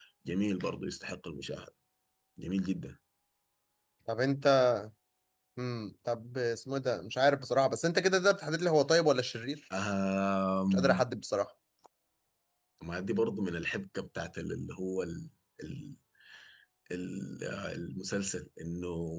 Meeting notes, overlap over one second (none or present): none